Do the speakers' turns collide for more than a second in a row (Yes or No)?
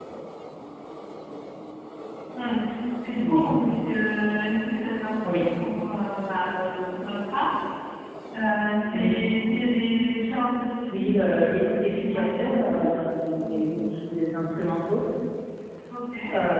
Yes